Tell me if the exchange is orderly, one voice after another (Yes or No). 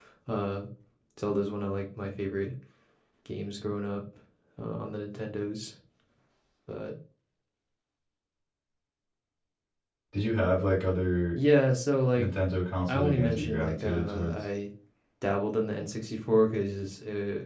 No